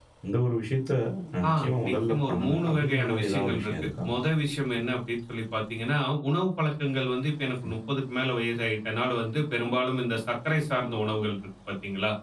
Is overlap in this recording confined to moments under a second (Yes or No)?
No